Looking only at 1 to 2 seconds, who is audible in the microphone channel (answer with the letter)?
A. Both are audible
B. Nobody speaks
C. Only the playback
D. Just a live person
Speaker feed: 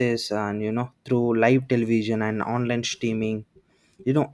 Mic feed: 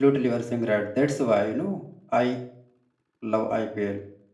D